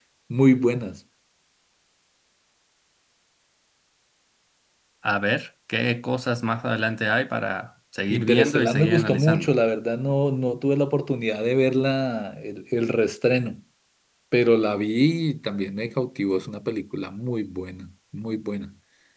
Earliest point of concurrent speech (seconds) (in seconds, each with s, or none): 8.1 s